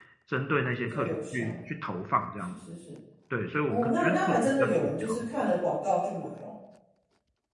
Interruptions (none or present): present